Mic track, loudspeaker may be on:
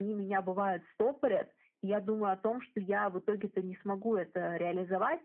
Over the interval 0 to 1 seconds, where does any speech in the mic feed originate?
echo only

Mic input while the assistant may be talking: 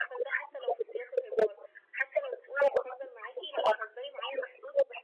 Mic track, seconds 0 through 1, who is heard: echo only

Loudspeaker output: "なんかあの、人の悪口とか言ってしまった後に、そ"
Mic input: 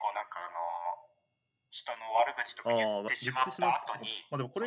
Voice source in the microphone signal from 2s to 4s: both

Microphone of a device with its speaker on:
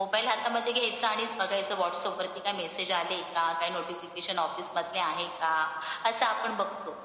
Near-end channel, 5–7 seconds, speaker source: echo only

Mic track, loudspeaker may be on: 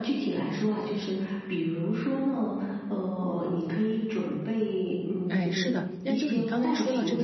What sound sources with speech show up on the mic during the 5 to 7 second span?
both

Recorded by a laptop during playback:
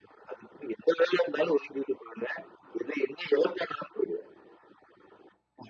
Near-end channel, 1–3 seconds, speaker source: echo only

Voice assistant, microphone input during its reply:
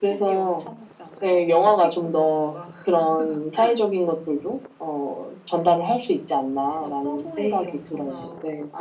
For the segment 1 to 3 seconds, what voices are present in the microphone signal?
both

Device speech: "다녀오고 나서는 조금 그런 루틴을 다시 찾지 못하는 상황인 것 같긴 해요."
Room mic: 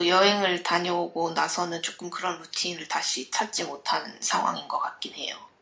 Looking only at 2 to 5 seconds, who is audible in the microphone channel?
echo only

